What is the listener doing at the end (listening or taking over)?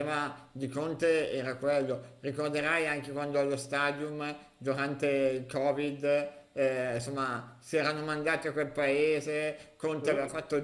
listening